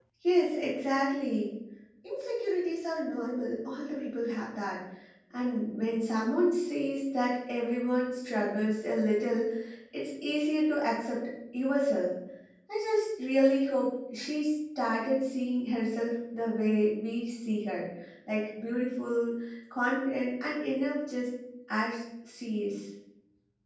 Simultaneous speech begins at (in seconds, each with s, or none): none